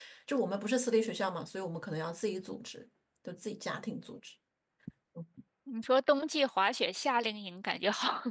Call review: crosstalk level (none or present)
none